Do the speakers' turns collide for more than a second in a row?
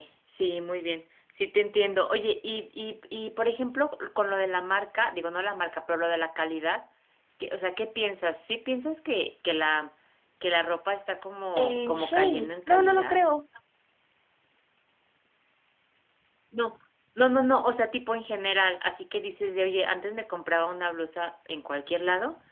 Yes, from 11.6 s

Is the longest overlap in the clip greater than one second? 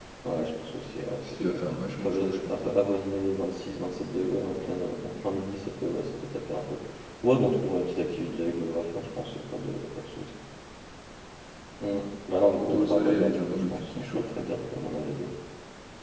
Yes, from 1.4 s

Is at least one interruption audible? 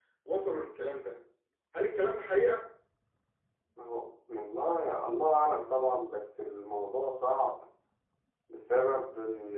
No

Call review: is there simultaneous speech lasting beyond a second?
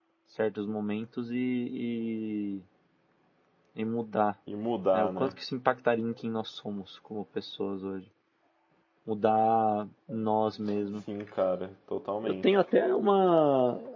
No

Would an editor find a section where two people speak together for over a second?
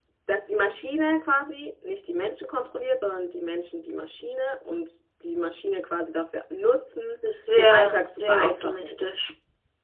Yes, from 7.5 s

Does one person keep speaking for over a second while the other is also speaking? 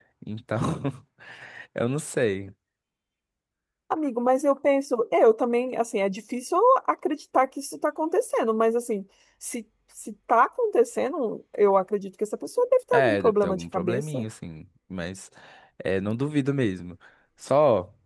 Yes, from 12.9 s

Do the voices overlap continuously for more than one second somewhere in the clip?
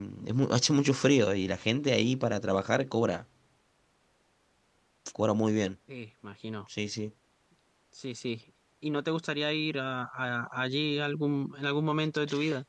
No

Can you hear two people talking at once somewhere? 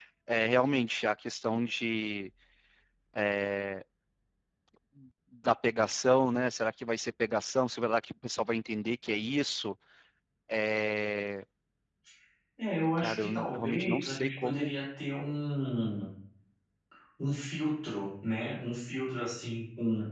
Yes, from 13.0 s

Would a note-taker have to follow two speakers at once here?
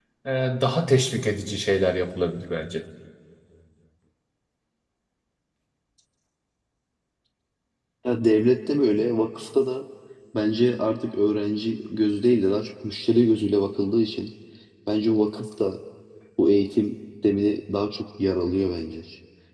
No

